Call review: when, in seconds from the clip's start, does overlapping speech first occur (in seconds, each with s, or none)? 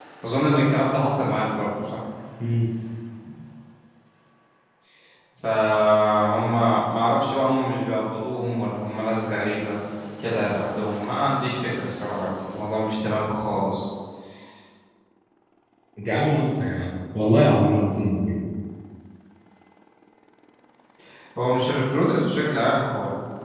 none